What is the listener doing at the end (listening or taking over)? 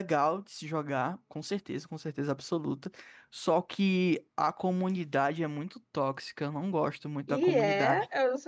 taking over